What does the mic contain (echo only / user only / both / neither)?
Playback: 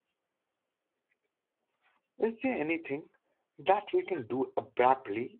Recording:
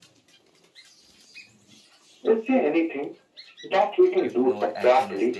both